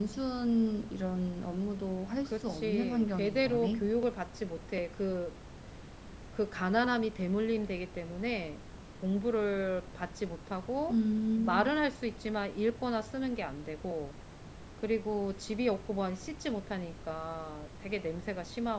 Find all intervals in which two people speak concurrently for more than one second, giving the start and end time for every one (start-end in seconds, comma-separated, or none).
2.2-3.8